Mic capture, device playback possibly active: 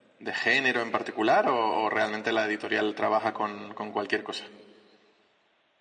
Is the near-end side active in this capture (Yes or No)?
No